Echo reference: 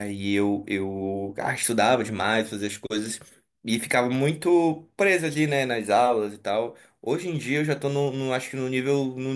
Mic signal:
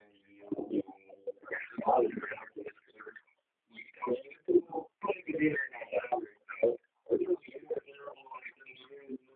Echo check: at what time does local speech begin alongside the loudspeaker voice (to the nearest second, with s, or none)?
none